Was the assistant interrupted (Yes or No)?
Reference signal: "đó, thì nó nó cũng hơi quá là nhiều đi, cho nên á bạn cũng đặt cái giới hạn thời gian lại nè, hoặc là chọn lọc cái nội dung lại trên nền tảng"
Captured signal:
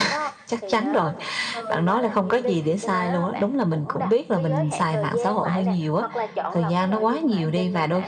Yes